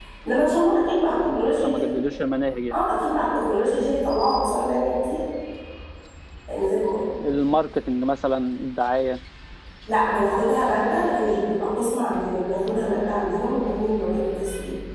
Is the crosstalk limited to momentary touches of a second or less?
Yes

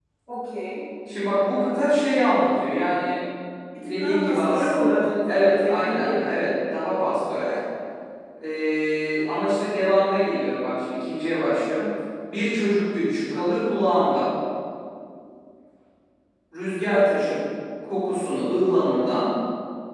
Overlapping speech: Yes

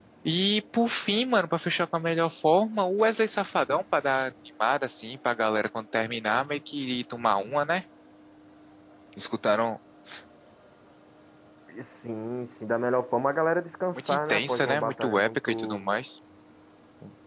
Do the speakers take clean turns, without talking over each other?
No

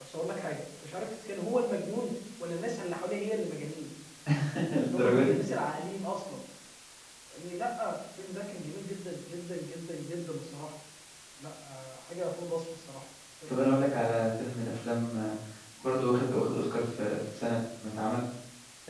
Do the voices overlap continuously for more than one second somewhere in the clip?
No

